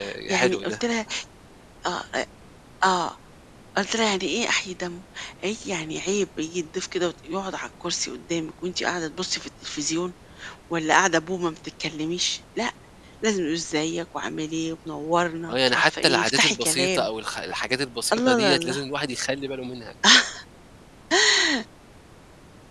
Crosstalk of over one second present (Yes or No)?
Yes